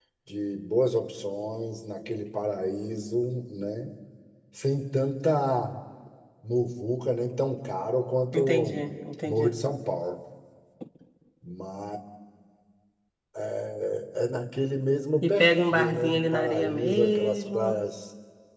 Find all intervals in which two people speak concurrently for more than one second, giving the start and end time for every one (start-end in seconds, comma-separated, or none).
15.2-17.8